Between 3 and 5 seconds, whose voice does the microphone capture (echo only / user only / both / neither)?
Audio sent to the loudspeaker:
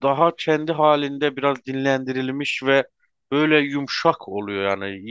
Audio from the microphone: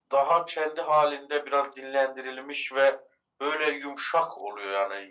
echo only